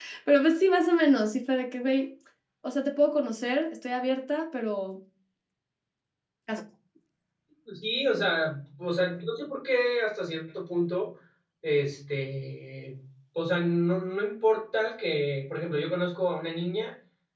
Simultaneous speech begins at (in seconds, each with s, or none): none